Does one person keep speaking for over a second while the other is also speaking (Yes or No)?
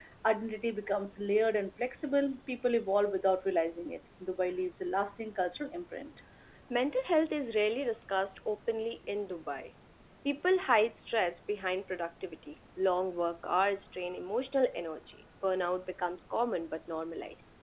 No